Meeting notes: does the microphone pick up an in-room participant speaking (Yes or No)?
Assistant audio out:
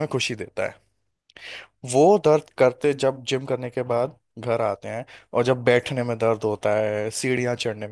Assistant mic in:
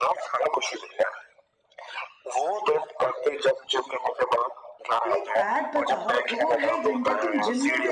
Yes